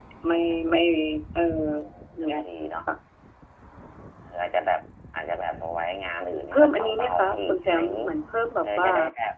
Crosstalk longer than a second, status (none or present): present